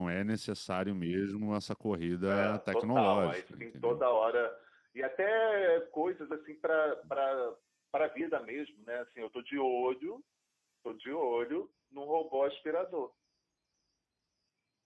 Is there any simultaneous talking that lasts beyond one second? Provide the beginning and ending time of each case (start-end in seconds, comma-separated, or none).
2.3-4.0